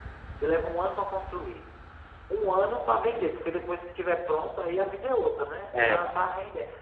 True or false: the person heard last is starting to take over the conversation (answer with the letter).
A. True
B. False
B